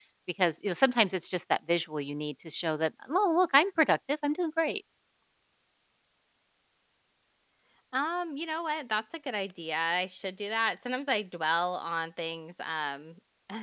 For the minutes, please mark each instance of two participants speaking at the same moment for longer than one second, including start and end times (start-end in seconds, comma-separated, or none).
none